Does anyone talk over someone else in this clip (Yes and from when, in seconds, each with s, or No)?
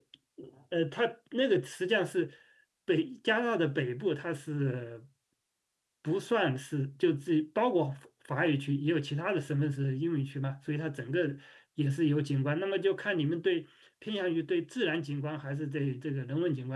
No